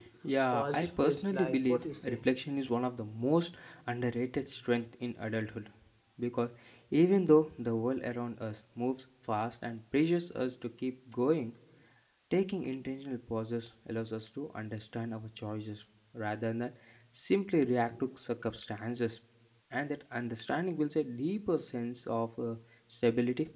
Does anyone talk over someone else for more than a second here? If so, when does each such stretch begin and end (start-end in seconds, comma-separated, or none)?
0.5-2.2